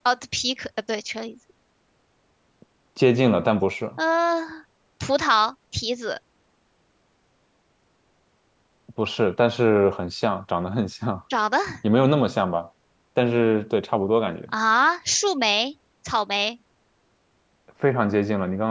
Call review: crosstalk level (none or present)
none